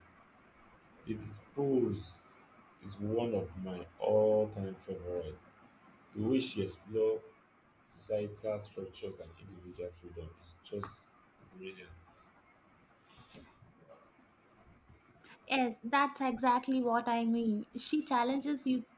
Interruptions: none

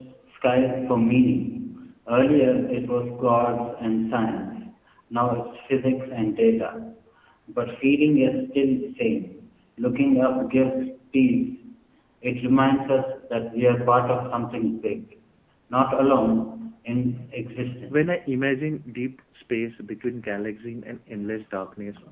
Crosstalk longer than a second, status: none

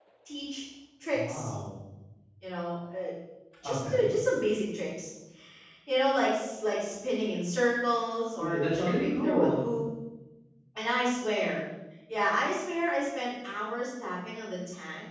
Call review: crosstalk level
present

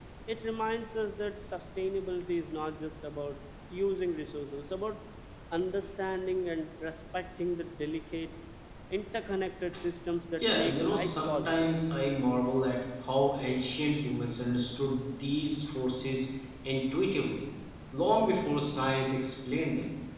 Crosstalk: present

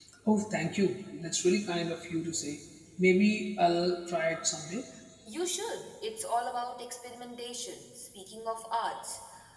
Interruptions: none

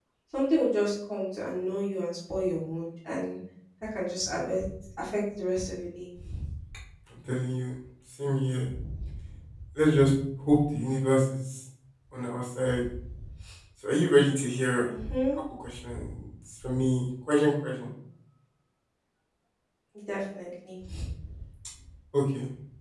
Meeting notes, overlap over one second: none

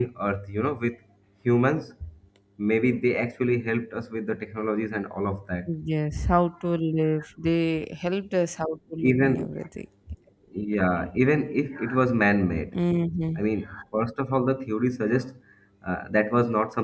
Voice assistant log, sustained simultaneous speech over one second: none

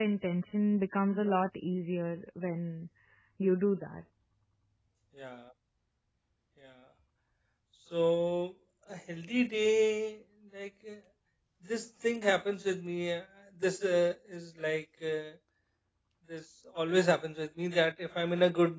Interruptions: none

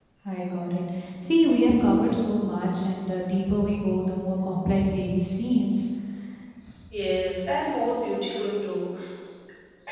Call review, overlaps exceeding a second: none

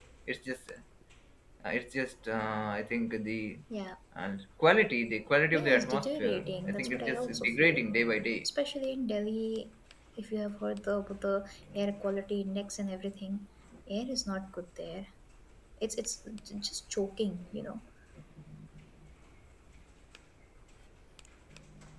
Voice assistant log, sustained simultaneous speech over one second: present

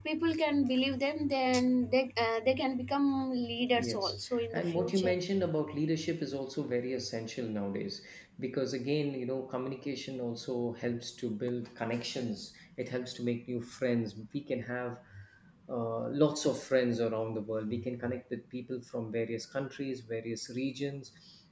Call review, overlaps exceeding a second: present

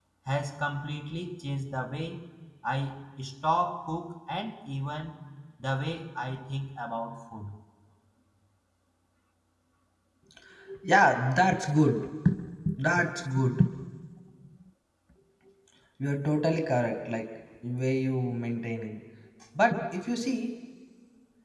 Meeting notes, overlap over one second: none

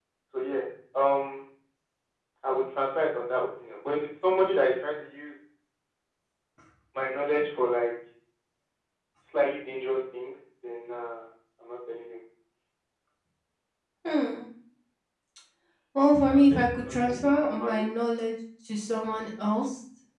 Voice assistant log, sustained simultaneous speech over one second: present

